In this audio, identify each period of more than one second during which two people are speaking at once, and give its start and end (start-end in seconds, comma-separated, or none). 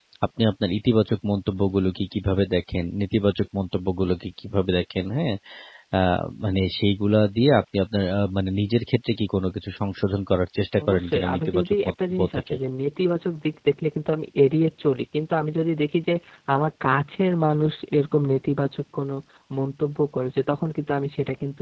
10.9-12.6